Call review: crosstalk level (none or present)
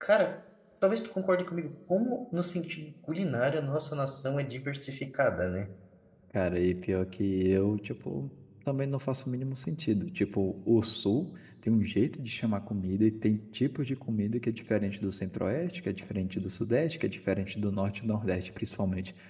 none